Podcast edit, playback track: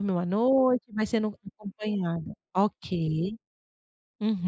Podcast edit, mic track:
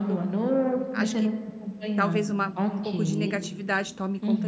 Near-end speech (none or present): present